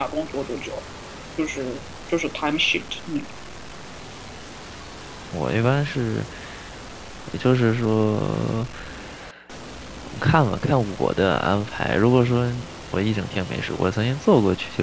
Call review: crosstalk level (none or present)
none